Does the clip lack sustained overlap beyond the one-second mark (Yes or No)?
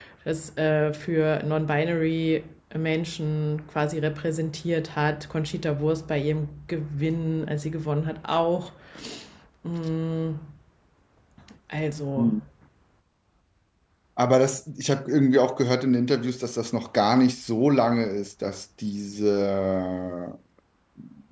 Yes